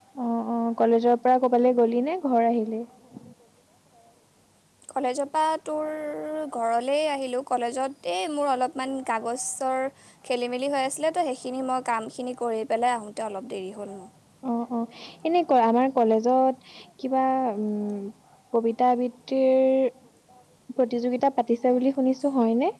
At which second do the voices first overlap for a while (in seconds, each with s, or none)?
none